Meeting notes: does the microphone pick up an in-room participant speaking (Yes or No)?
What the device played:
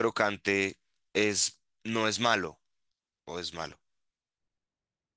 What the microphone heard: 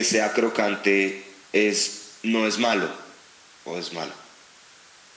No